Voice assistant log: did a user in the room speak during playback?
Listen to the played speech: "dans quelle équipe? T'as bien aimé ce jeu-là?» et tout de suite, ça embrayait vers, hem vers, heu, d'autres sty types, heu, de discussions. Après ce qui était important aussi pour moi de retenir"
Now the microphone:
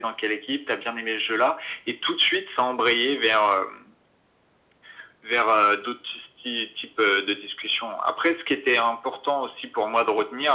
No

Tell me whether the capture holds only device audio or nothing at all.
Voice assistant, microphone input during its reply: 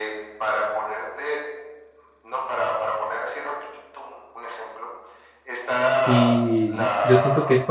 No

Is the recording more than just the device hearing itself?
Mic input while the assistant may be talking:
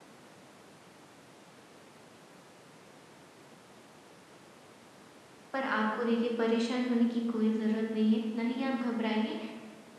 Yes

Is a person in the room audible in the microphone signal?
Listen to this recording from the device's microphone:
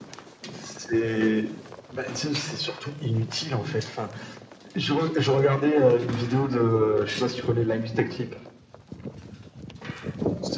No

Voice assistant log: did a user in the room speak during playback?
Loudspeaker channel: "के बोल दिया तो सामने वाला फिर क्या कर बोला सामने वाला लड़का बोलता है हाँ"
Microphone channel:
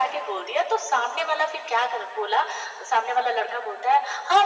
No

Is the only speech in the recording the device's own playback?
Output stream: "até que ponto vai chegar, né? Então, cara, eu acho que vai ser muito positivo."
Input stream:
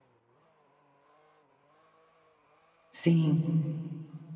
No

